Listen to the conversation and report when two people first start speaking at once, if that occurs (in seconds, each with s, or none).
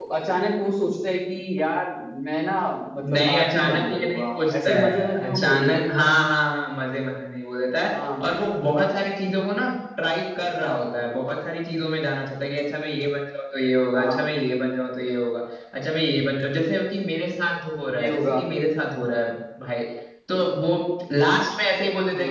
3.1 s